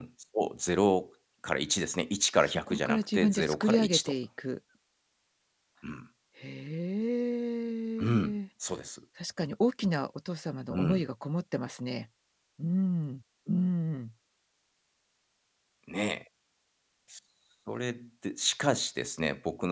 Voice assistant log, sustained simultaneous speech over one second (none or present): present